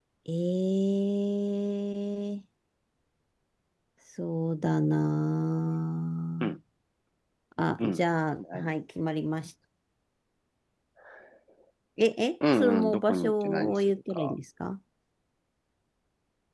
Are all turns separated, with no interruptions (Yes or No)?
No